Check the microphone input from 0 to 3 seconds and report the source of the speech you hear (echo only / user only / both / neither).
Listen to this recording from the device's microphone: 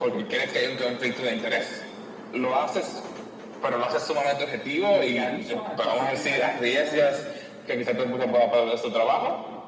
echo only